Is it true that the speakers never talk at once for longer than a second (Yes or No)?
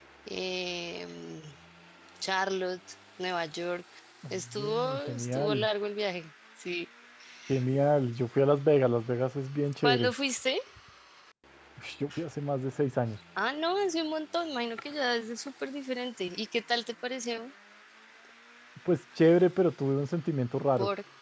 No